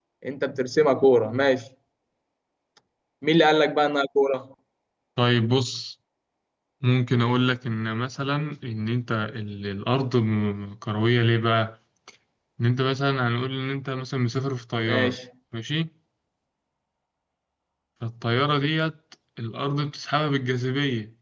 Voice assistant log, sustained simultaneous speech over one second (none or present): none